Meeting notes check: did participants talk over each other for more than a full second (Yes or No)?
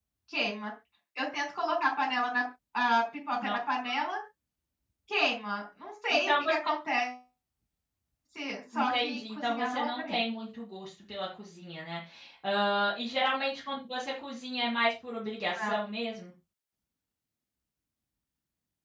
Yes